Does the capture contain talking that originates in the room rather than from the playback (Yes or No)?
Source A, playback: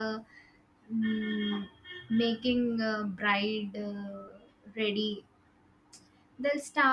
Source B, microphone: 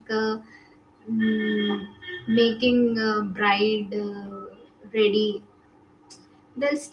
No